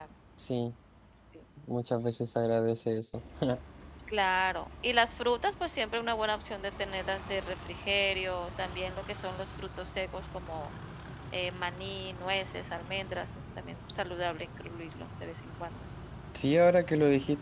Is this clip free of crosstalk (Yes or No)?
Yes